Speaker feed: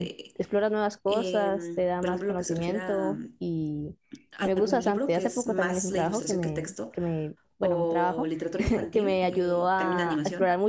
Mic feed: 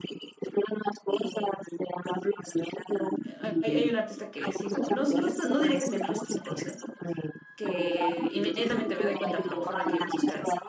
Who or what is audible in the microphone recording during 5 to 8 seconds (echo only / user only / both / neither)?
both